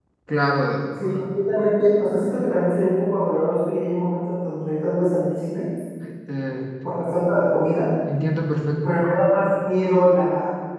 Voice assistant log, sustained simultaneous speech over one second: none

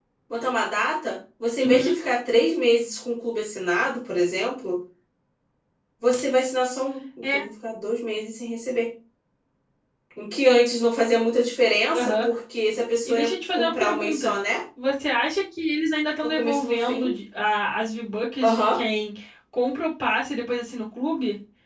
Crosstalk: present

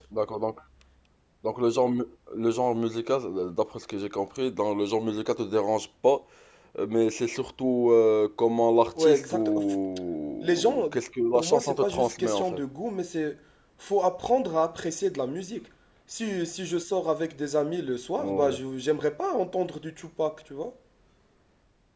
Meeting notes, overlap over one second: present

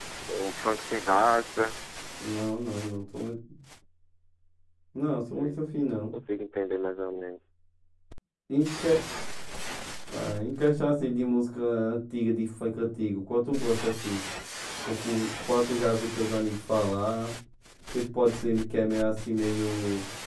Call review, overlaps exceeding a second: none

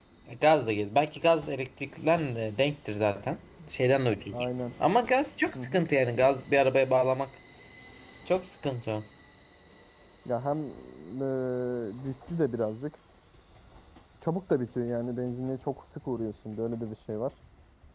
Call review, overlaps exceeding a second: none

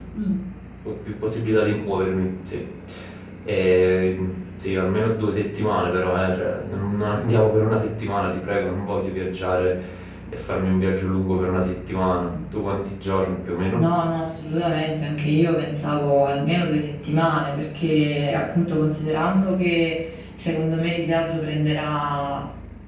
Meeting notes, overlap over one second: none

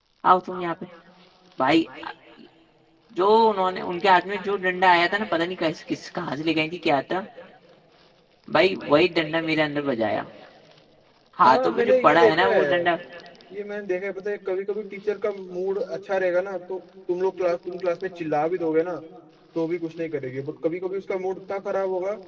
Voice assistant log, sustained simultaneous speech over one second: present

